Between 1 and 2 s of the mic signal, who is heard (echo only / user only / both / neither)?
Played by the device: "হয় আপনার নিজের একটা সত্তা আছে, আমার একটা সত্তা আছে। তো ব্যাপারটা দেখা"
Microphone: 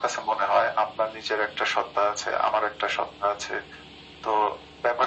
echo only